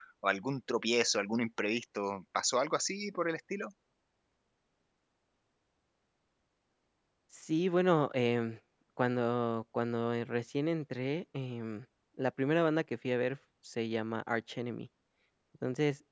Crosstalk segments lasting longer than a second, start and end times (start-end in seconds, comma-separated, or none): none